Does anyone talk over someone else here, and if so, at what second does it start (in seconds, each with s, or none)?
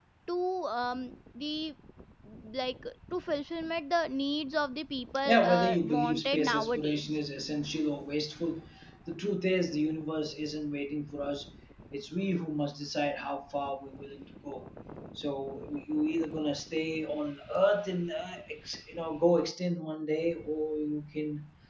5.2 s